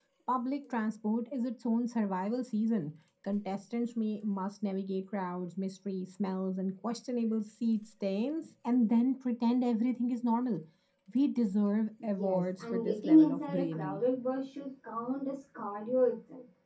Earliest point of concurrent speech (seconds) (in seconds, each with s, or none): 12.0 s